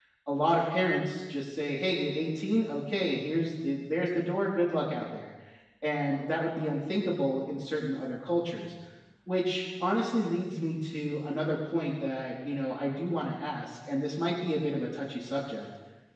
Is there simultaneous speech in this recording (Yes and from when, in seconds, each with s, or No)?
No